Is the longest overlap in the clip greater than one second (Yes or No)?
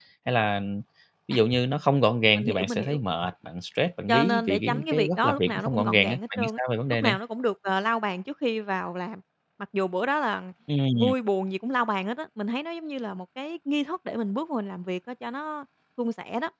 Yes